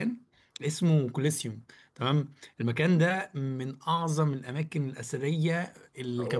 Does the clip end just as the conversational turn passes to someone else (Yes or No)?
No